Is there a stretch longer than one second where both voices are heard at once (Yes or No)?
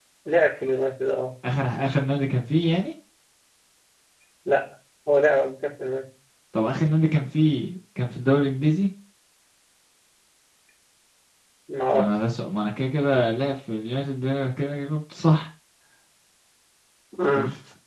No